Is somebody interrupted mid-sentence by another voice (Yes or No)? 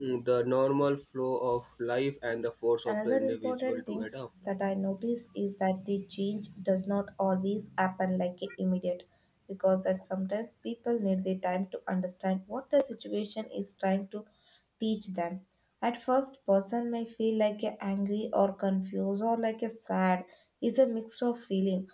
Yes